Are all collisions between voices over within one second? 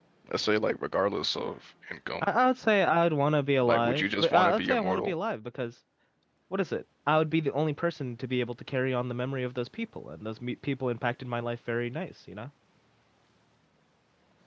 No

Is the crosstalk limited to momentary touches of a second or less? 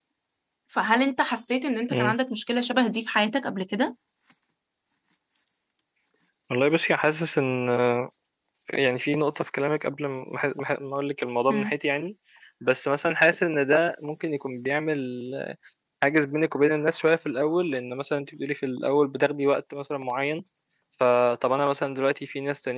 Yes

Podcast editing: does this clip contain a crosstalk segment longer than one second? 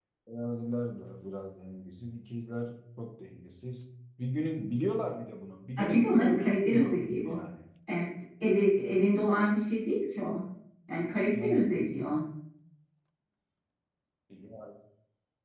Yes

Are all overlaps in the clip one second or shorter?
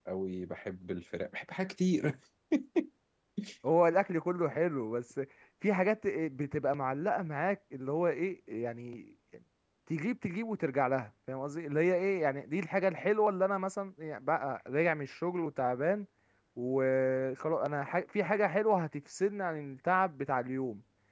Yes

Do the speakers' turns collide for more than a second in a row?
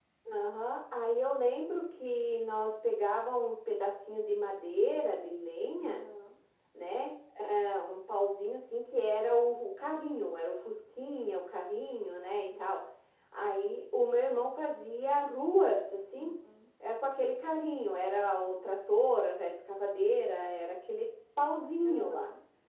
No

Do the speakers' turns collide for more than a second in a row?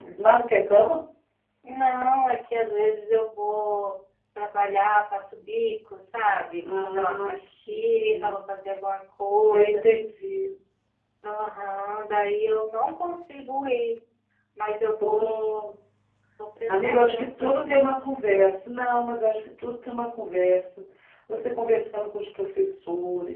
Yes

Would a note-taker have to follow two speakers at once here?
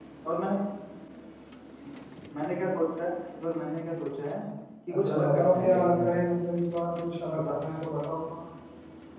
Yes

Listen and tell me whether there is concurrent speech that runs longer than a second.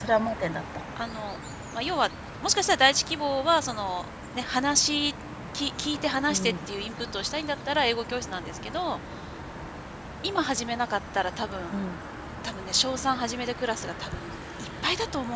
No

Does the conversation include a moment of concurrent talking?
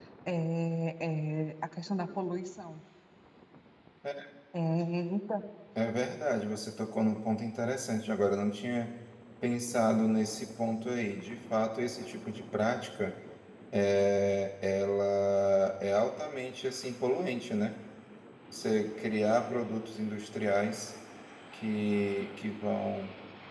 No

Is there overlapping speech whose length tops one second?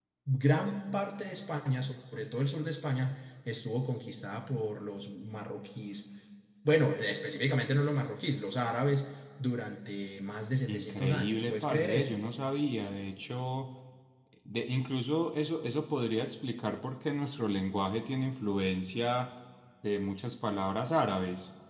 Yes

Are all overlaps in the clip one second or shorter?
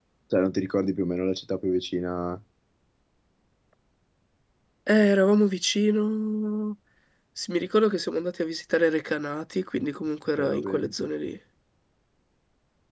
Yes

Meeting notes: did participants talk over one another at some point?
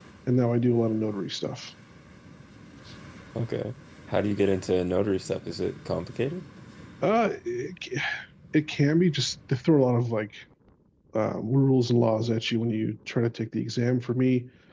No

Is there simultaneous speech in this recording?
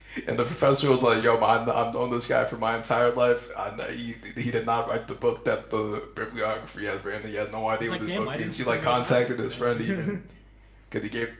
Yes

